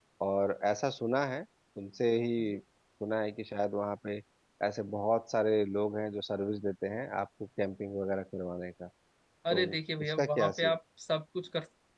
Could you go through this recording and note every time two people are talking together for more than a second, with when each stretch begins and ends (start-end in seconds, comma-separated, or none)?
9.5-10.8